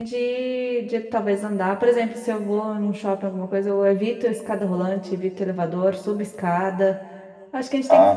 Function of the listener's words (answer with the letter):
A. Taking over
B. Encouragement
B